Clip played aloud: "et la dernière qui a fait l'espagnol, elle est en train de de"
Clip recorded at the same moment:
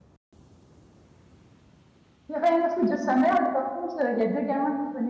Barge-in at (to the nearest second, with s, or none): 2 s